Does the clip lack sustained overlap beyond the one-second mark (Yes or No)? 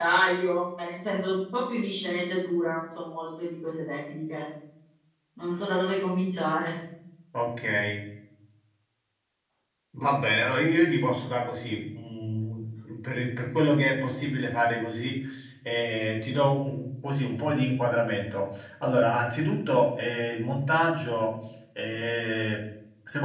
Yes